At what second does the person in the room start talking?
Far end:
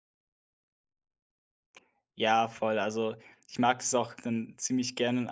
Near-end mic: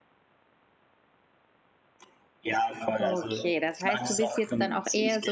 3.0 s

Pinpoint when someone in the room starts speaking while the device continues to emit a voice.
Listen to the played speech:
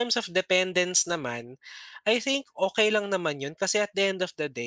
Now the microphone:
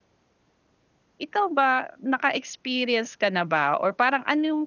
1.2 s

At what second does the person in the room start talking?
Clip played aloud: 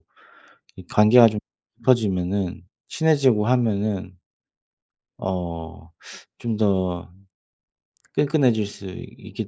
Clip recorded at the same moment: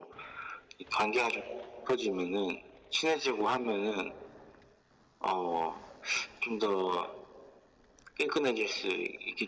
none

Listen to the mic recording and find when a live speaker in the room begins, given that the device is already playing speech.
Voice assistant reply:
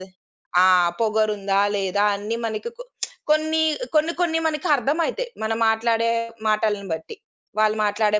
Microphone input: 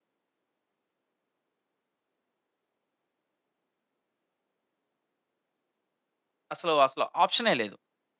6.5 s

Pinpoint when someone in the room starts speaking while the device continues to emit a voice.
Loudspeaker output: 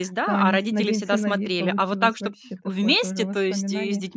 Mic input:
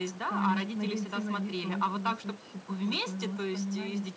none

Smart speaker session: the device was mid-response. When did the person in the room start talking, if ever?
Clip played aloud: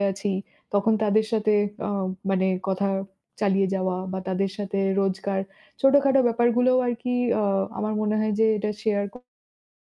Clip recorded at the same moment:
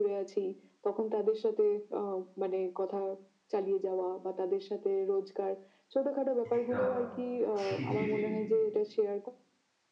6.5 s

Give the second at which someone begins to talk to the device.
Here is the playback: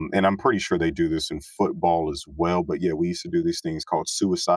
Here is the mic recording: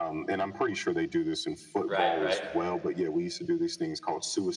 1.8 s

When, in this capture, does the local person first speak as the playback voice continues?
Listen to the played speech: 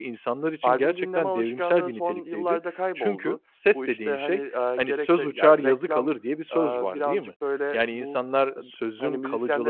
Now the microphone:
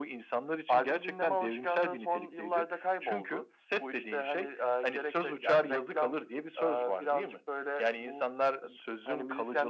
none

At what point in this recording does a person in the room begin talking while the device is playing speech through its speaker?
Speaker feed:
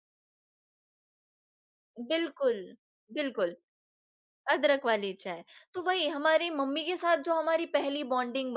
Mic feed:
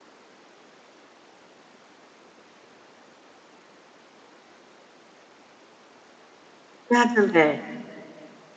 6.9 s

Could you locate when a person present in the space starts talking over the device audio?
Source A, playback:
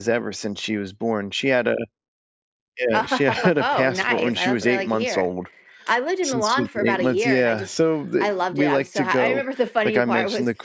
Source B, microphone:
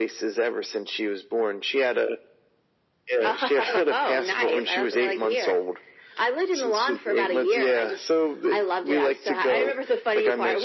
none

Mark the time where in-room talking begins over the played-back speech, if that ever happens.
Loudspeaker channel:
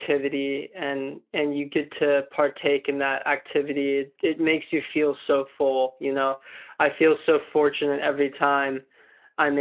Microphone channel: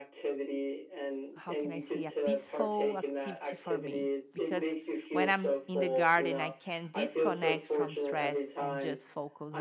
1.3 s

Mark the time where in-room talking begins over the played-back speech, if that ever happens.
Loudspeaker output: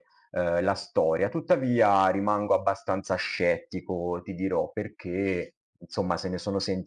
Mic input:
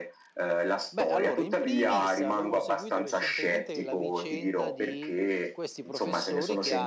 0.9 s

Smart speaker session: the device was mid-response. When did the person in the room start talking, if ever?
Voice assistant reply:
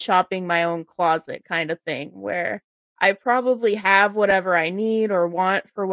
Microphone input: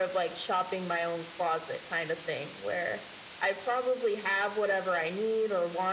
none

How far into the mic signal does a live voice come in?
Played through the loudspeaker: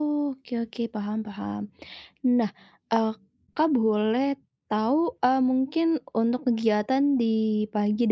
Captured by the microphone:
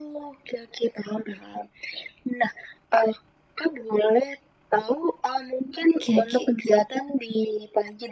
6.1 s

